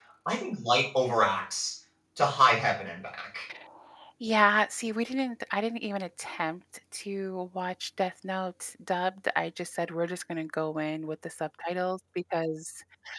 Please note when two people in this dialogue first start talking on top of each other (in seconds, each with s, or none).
none